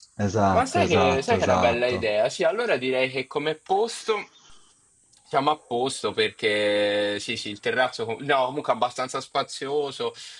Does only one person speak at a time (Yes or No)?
No